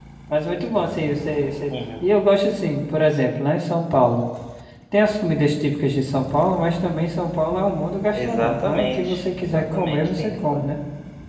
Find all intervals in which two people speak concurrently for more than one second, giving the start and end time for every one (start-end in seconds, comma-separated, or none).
8.2-10.7